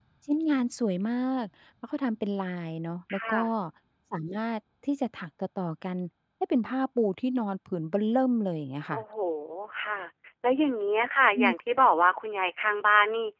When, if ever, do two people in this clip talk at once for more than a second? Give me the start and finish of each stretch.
none

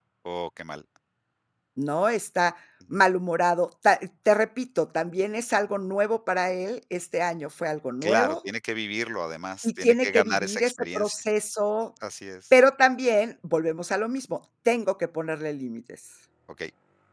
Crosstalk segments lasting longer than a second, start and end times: 9.6-11.1

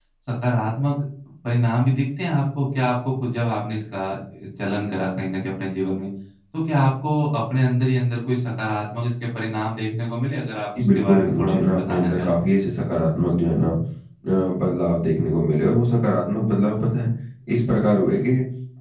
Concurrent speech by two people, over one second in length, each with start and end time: 10.9-12.4

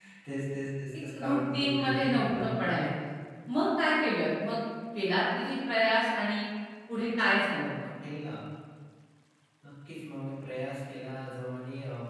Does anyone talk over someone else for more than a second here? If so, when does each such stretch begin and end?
1.2-2.9

